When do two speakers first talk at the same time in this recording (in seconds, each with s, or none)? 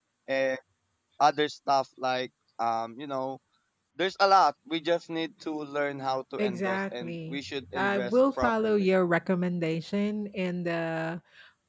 6.4 s